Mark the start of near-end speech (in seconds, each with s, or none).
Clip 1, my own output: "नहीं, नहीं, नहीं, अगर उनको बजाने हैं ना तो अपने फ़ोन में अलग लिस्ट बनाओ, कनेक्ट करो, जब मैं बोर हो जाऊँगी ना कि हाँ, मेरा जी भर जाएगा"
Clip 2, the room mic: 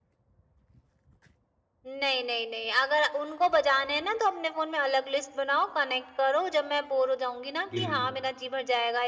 7.7 s